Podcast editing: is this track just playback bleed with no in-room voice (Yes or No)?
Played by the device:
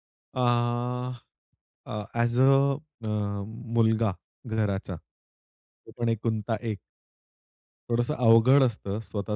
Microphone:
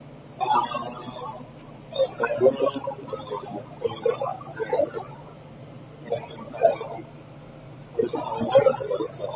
Yes